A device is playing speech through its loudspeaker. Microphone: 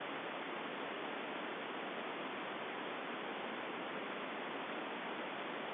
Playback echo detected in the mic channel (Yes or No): No